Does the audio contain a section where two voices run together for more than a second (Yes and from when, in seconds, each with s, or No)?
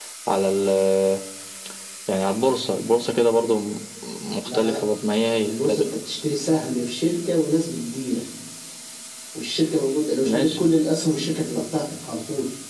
No